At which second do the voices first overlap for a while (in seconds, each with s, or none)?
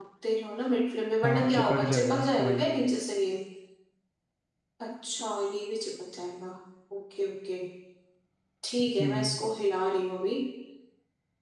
1.2 s